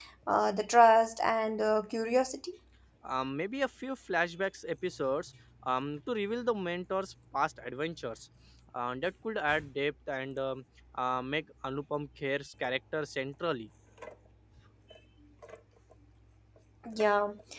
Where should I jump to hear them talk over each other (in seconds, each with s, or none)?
none